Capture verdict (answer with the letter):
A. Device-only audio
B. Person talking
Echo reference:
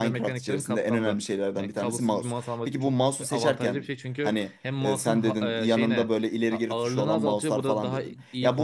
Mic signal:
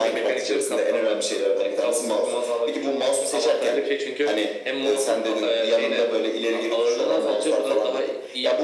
A